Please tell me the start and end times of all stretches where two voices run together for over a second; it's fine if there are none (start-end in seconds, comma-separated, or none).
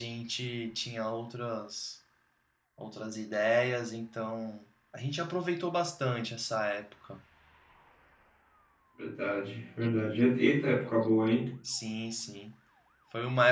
none